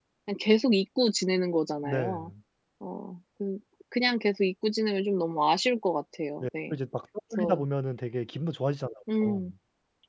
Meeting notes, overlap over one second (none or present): none